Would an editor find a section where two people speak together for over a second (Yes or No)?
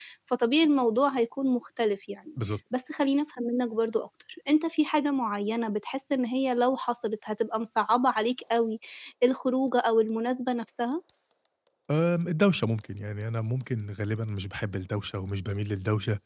No